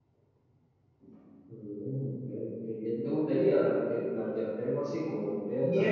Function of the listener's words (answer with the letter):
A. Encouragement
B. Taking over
B